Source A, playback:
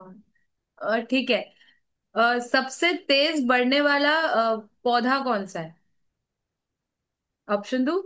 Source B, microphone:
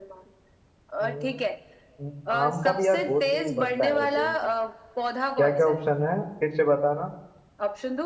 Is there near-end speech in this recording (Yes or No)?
Yes